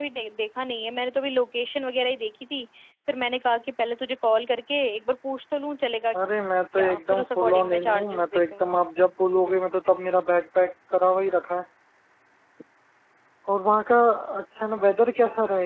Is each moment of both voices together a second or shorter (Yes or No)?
No